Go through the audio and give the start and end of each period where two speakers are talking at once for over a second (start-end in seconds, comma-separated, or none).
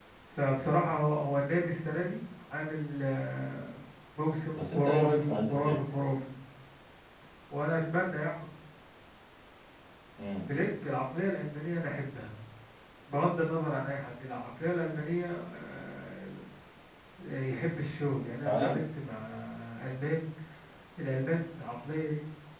4.5-6.0